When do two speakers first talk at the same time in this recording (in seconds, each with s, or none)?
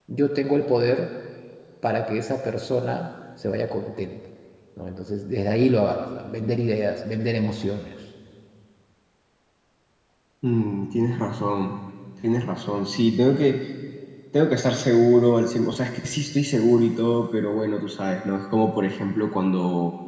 none